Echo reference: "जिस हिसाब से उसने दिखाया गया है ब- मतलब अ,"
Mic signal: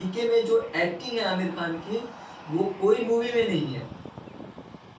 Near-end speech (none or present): present